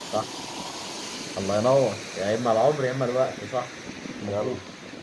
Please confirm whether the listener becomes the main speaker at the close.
No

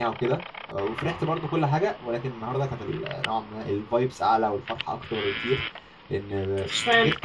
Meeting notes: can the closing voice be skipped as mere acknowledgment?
Yes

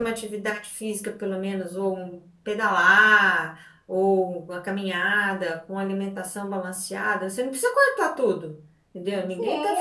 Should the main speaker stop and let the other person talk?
Yes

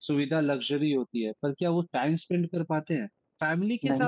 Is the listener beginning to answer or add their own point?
No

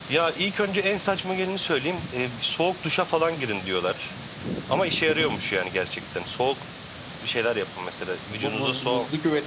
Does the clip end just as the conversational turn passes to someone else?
Yes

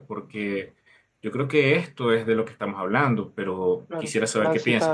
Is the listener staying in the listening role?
No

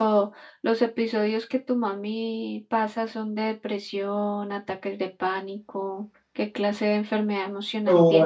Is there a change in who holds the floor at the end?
Yes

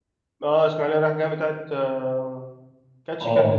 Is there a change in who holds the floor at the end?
Yes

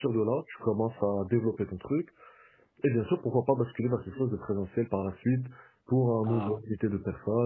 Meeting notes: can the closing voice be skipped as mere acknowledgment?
Yes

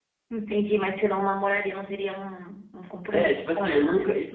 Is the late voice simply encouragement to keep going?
No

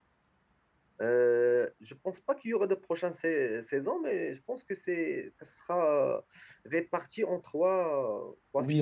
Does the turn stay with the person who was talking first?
No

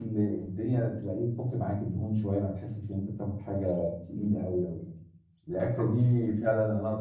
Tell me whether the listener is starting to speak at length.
No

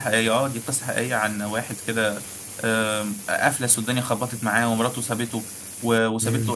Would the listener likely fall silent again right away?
Yes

